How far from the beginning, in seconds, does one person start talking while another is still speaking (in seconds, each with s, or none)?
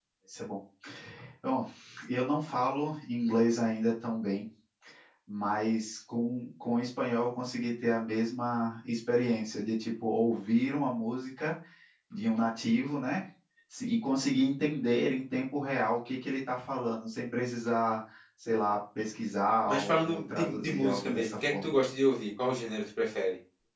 19.7 s